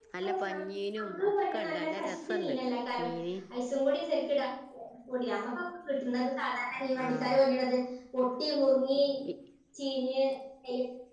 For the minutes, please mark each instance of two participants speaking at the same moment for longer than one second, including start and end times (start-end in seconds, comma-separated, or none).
1.0-2.5